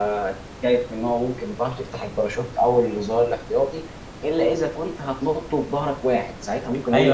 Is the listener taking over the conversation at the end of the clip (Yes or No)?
Yes